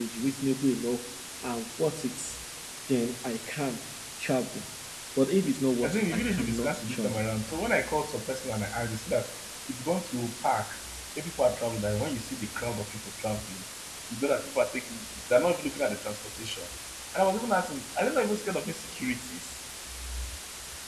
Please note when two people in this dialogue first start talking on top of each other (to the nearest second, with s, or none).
6 s